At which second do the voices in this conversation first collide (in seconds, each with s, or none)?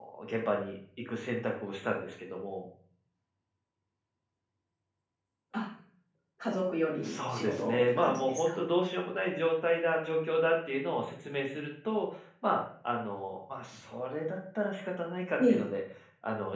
7.0 s